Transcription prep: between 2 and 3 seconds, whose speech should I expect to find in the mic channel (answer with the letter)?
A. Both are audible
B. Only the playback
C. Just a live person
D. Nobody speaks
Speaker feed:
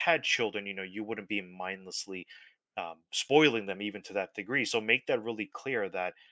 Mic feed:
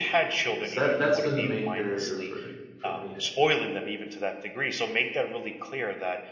A